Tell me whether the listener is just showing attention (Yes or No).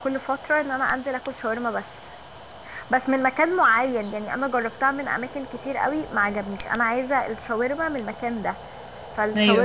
Yes